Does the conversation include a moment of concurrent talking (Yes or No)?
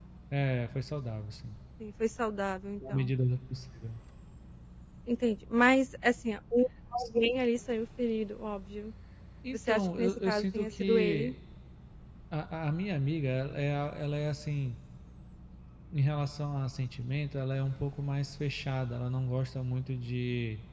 Yes